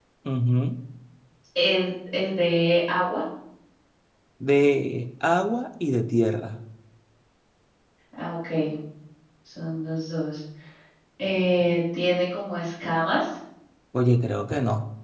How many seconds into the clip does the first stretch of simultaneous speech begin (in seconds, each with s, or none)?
none